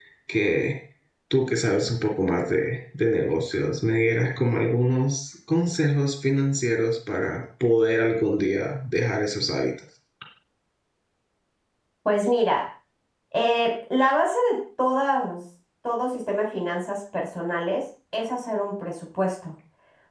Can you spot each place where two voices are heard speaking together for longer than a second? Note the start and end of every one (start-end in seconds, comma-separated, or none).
none